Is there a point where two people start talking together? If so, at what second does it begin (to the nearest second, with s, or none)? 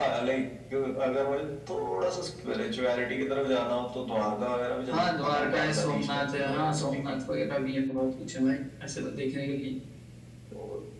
5 s